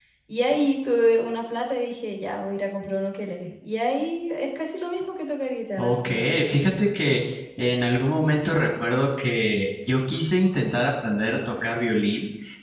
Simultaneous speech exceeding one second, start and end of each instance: none

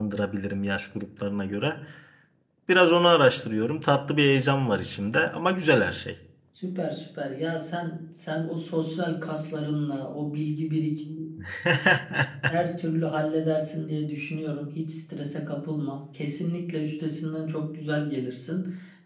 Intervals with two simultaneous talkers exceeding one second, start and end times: none

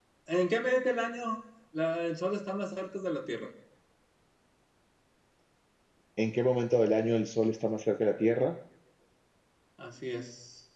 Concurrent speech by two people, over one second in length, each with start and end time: none

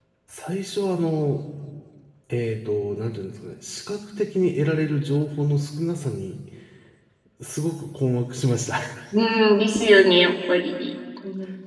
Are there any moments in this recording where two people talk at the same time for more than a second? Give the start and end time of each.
none

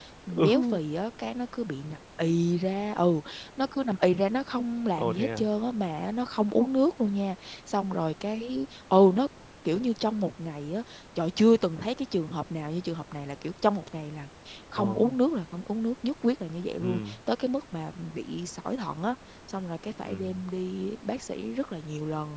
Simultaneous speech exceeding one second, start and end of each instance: none

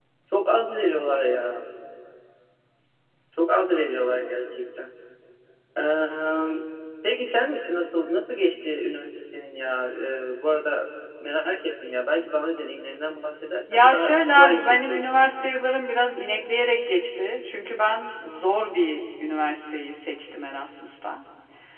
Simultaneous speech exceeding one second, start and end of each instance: 13.7-15.3

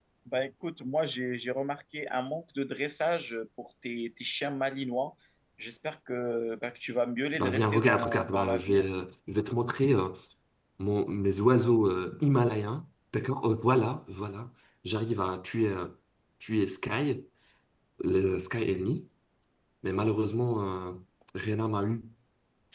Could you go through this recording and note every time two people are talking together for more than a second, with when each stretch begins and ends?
7.4-8.9

